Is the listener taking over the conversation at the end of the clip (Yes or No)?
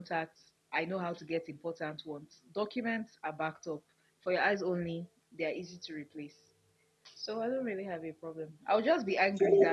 No